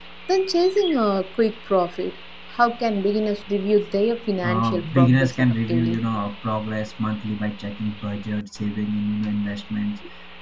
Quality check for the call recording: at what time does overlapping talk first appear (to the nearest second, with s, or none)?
4 s